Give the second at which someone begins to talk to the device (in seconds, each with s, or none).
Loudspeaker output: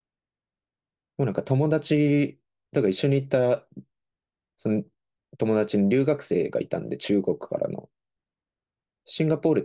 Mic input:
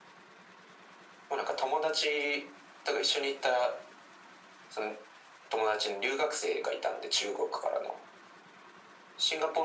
none